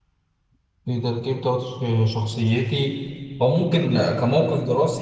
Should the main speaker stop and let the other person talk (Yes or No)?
No